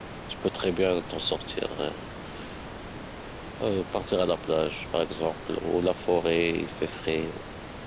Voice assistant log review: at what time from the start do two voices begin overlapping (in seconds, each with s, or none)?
none